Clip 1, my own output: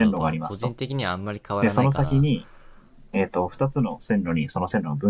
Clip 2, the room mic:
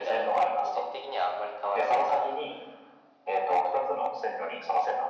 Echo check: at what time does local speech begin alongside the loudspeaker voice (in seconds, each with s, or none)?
none